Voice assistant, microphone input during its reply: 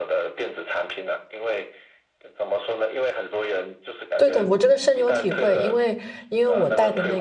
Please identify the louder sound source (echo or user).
user